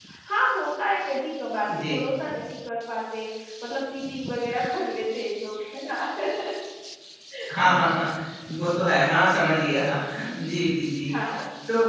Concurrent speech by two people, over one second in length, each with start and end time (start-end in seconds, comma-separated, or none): none